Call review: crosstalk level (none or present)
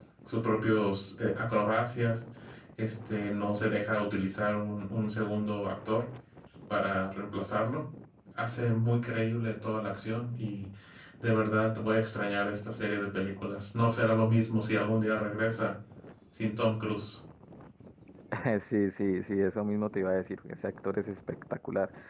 none